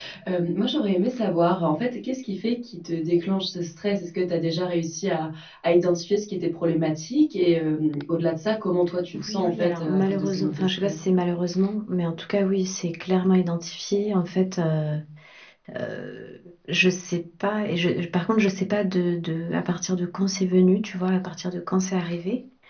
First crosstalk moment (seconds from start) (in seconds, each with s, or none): 9.1 s